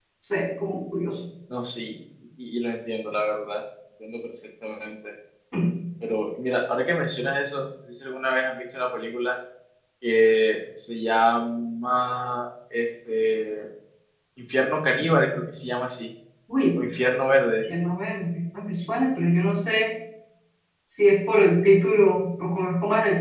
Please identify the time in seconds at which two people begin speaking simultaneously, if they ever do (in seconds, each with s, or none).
none